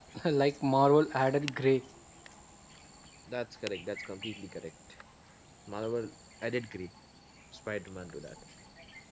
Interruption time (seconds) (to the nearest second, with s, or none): none